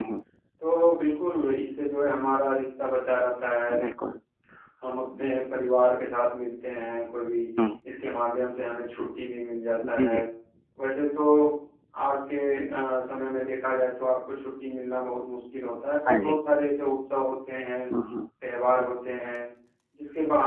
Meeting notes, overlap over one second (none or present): none